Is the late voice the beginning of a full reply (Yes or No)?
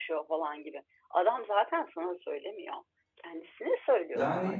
Yes